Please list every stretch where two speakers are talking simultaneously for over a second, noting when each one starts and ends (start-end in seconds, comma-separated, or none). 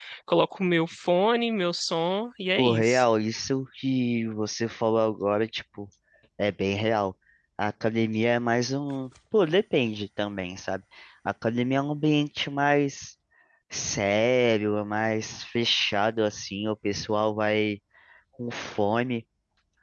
none